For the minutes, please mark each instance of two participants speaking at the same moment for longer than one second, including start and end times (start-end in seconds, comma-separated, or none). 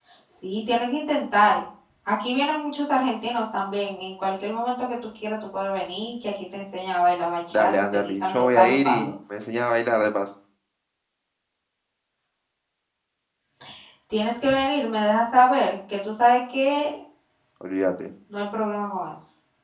7.5-9.1